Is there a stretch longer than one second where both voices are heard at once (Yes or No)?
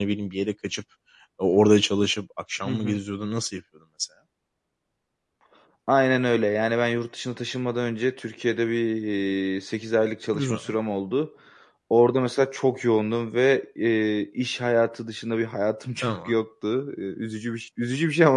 No